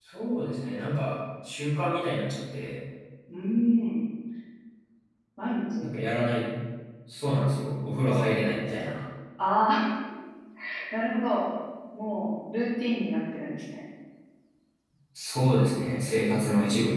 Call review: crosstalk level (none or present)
none